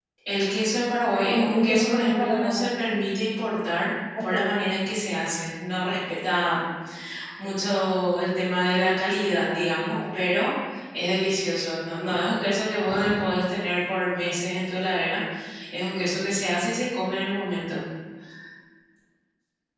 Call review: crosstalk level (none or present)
present